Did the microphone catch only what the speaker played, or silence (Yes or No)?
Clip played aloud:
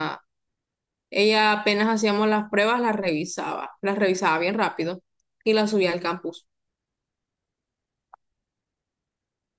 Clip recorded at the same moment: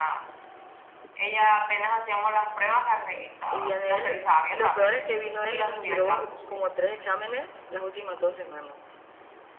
No